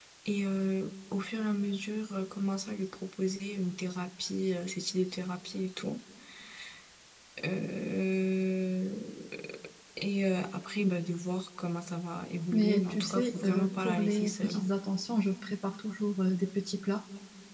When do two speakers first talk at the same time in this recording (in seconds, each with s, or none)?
12.5 s